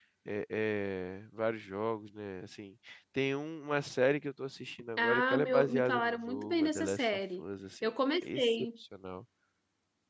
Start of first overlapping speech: 5.0 s

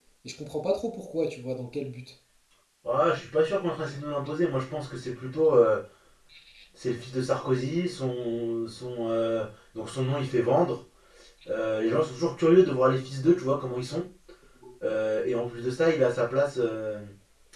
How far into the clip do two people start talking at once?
none

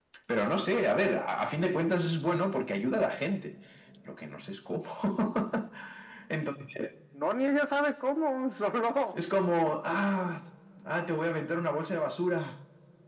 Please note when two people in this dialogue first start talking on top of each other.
none

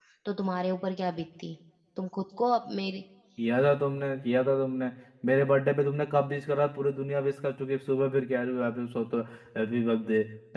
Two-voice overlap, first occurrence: none

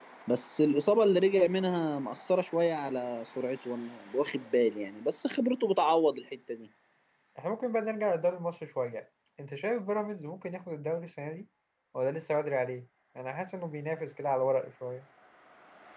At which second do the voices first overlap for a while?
none

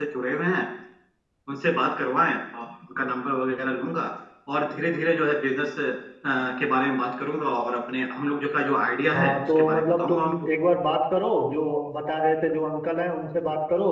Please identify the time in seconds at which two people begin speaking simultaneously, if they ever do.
9.1 s

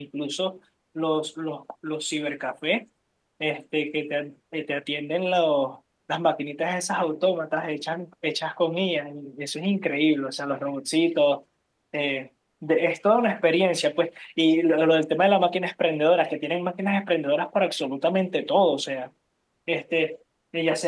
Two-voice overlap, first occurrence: none

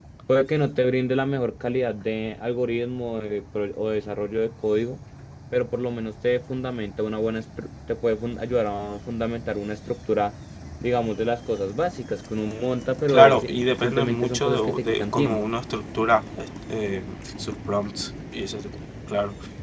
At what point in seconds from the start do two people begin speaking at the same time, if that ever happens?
13.1 s

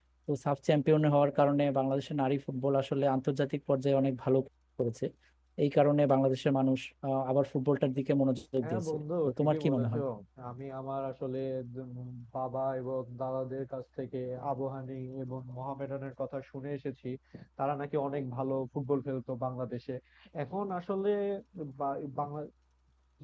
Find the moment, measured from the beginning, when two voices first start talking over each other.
8.6 s

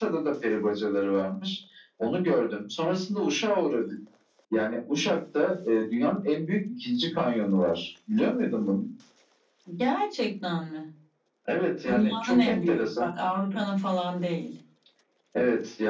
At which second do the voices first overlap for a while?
11.8 s

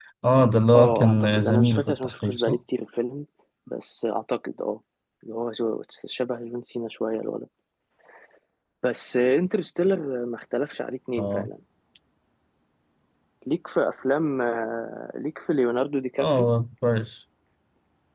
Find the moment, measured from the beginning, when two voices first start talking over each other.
0.7 s

